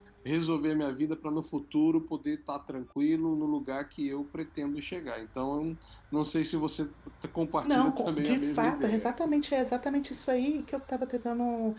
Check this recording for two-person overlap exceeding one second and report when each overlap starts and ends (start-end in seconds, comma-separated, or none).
7.6-9.1